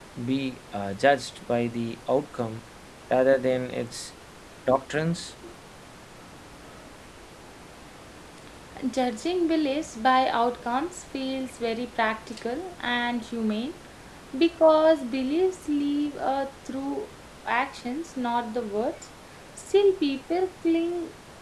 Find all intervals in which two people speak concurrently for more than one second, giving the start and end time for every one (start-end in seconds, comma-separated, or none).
none